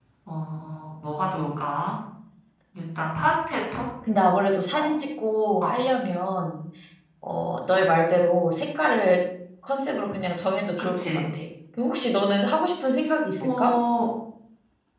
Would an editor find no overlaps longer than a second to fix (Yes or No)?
Yes